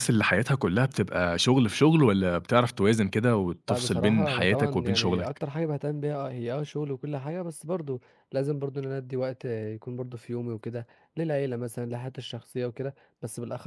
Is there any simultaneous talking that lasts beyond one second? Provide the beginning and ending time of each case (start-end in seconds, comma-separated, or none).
3.7-5.3